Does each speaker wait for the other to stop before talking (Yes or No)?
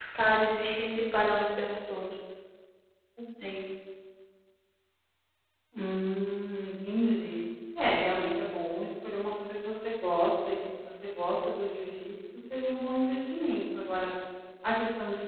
Yes